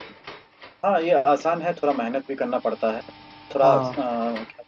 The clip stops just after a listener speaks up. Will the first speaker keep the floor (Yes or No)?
Yes